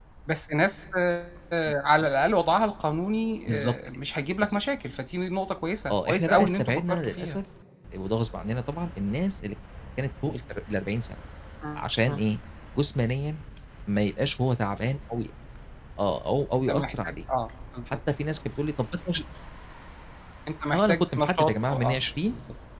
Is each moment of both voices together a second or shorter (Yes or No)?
No